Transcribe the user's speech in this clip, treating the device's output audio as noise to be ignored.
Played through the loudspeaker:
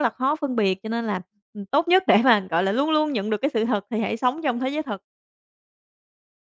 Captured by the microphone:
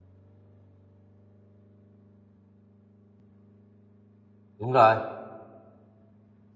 đúng rồi.

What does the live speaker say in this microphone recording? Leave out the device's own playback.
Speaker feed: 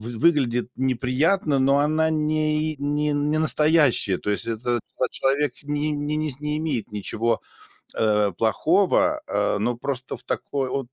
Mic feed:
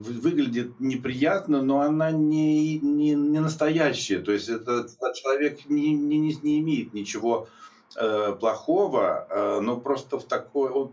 none

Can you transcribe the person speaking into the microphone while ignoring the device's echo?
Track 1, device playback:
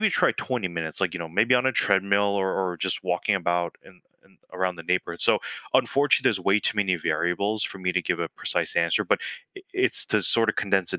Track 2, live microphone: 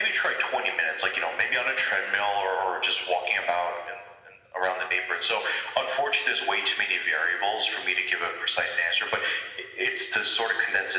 none

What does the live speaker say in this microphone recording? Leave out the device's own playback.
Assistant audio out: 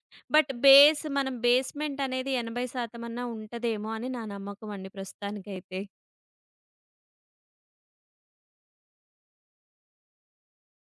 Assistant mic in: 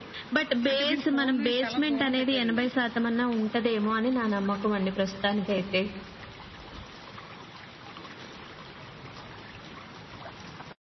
అంటే మీరు ఫోన్‌ని చాలా దూరం పెట్టారండి అయితే.

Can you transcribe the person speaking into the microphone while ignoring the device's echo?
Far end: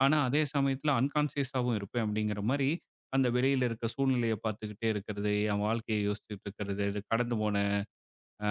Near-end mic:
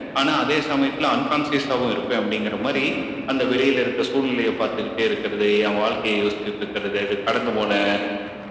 none

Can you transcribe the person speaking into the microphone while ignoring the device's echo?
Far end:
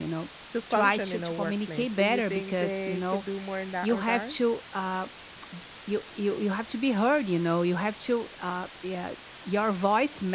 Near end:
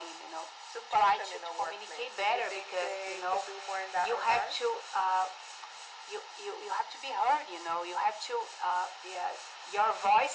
none

